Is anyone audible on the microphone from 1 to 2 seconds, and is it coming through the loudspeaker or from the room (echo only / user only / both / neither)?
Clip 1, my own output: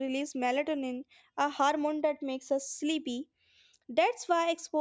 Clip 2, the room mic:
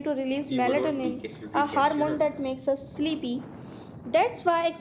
both